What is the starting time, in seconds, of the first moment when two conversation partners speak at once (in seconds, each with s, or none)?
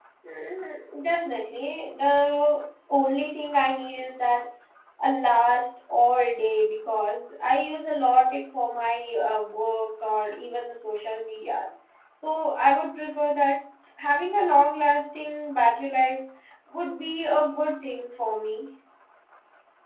none